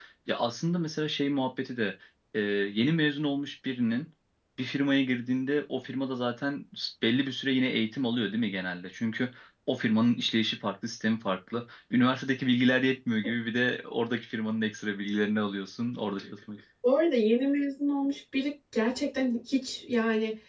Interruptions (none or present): none